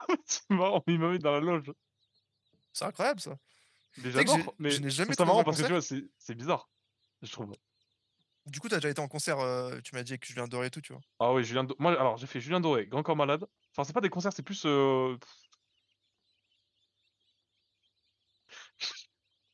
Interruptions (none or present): present